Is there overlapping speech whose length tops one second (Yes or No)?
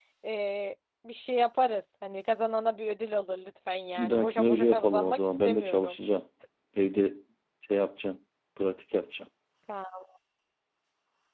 Yes